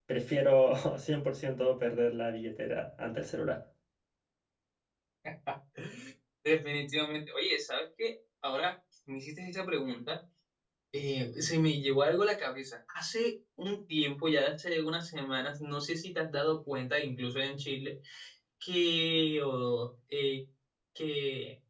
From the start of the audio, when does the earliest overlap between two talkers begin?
none

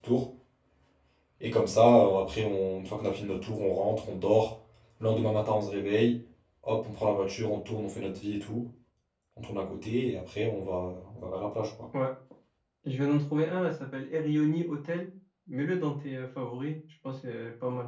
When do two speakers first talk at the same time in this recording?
none

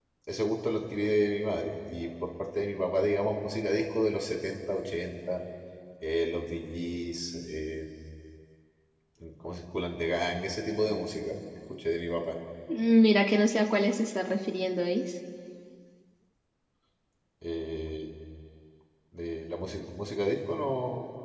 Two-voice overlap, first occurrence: none

